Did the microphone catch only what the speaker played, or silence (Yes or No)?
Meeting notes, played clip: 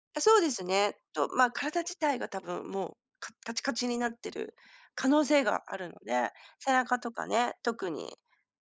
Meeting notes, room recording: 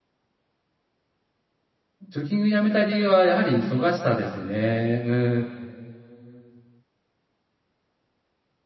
No